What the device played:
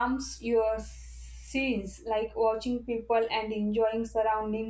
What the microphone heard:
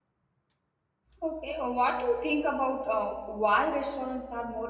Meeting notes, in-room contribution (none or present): present